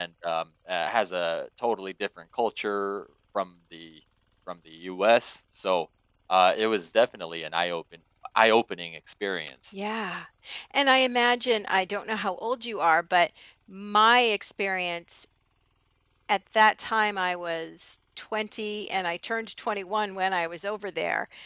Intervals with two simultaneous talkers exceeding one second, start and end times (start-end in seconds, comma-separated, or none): none